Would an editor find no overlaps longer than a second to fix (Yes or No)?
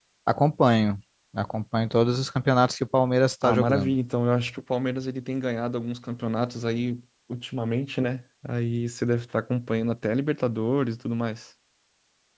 Yes